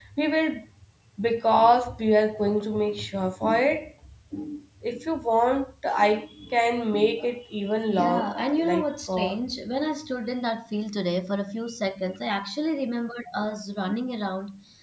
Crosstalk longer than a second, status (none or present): present